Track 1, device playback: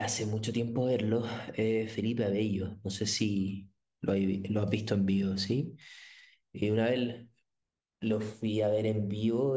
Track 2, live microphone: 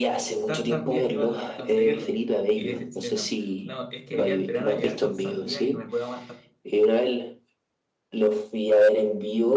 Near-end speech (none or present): present